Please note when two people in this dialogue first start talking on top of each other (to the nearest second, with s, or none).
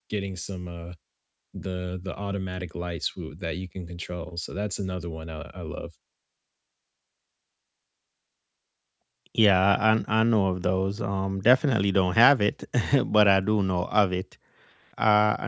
none